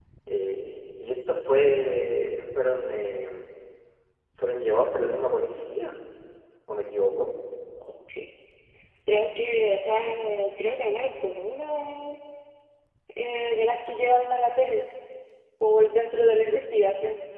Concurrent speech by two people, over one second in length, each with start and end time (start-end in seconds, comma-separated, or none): none